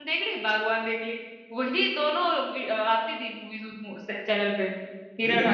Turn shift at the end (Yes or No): Yes